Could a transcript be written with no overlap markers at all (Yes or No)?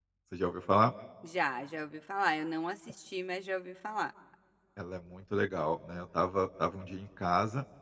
Yes